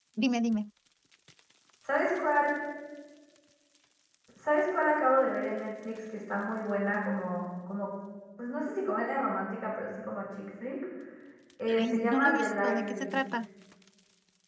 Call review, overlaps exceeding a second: present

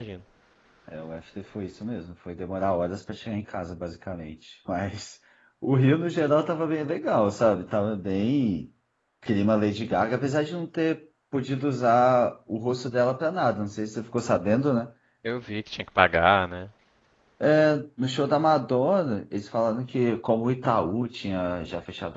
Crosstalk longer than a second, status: none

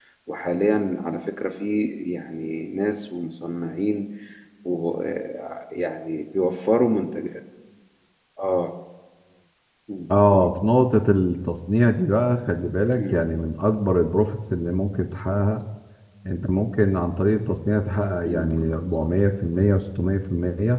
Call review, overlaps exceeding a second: none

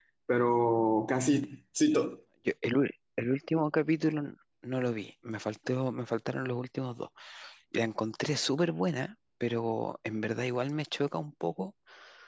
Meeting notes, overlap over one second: none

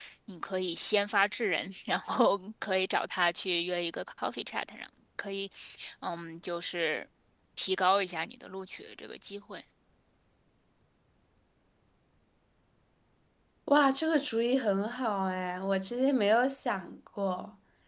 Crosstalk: none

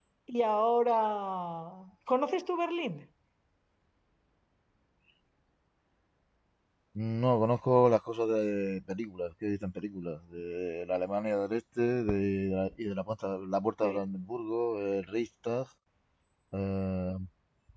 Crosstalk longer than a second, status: none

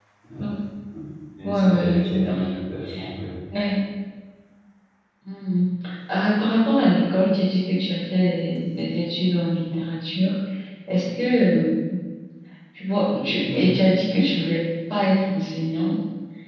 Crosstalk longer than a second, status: present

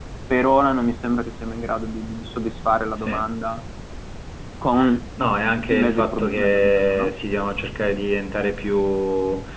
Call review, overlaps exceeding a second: present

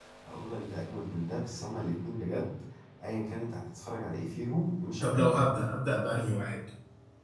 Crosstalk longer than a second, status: none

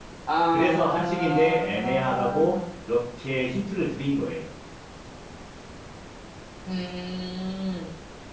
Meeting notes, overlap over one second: present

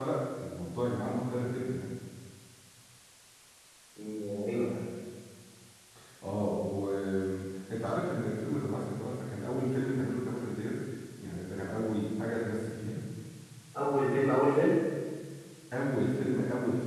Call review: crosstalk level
none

